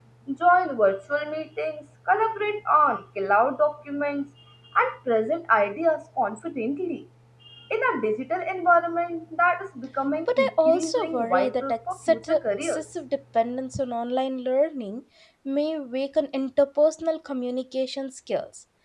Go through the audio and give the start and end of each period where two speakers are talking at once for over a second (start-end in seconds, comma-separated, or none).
10.4-12.8